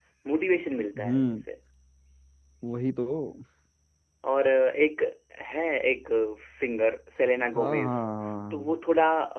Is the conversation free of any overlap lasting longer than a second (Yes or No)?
Yes